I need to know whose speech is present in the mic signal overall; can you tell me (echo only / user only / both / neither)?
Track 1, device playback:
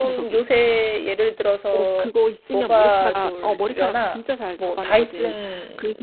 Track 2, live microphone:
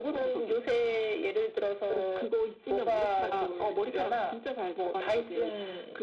echo only